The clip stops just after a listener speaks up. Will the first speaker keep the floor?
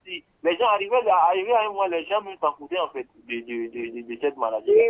No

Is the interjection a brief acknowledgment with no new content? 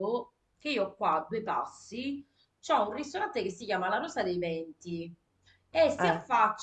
Yes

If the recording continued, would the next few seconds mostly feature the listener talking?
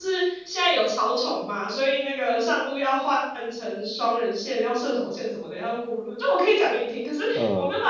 No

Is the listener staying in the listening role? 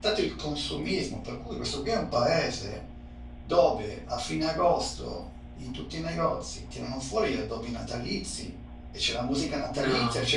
Yes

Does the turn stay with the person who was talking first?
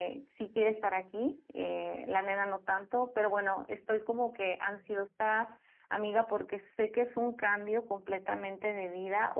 Yes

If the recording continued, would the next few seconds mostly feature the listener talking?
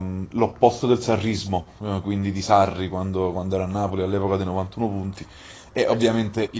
No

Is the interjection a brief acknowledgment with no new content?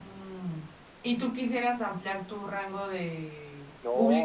No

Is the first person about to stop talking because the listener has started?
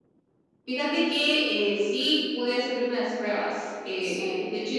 No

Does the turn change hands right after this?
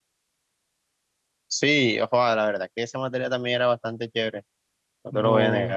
Yes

